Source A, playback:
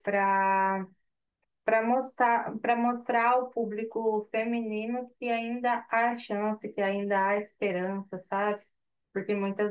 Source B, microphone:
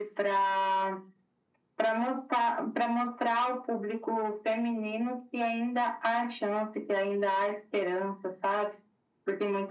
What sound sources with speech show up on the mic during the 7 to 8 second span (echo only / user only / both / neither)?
echo only